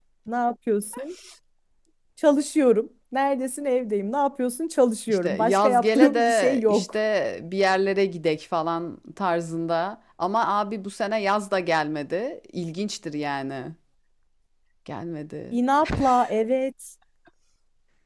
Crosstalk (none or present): present